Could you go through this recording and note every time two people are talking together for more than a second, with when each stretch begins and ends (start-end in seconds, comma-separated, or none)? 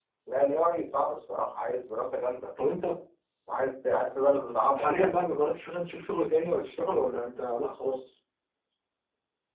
none